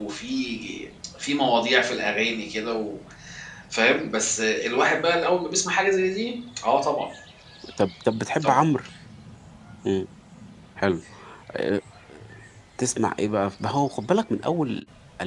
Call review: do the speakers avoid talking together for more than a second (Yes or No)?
Yes